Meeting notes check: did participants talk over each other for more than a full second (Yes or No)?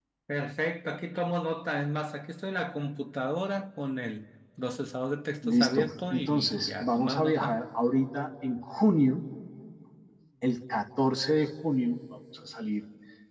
Yes